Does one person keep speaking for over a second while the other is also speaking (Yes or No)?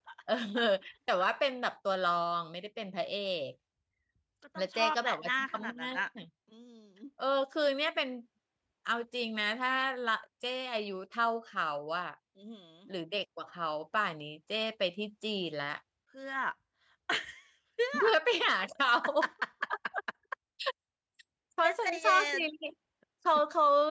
Yes